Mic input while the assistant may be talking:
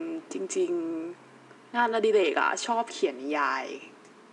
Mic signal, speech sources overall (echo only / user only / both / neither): echo only